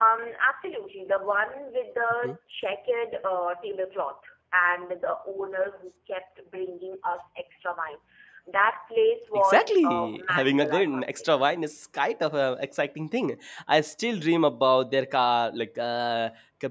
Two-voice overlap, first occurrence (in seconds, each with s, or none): 9.3 s